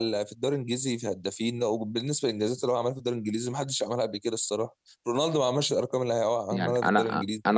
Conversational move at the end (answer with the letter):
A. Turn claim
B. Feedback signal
A